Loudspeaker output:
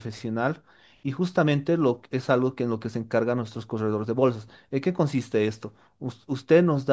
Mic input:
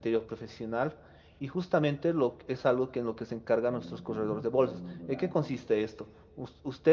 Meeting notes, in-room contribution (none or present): present